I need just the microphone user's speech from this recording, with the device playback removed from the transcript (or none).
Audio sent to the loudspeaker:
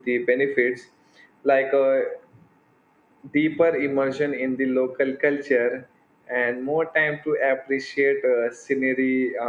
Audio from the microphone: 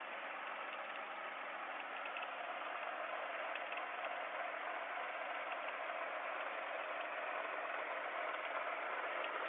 none